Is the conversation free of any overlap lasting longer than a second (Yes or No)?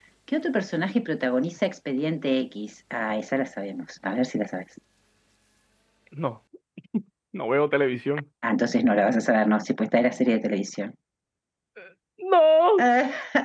Yes